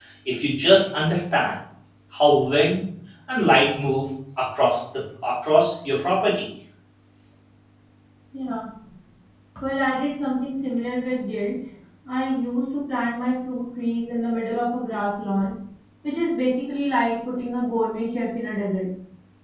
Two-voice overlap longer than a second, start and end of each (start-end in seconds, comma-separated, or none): none